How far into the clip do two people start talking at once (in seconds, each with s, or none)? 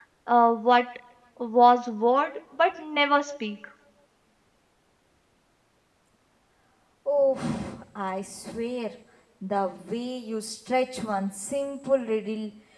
none